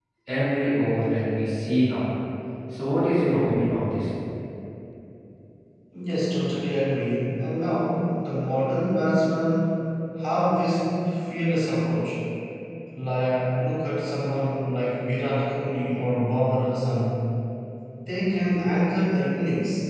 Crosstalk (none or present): none